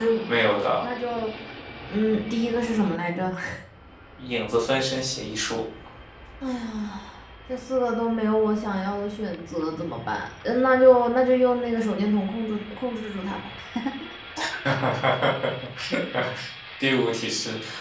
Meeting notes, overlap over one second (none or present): none